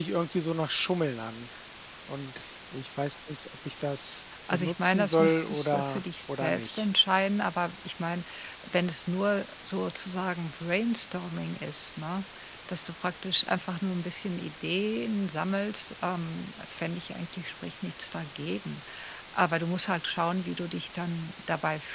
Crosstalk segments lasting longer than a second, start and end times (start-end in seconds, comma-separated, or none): 4.5-6.8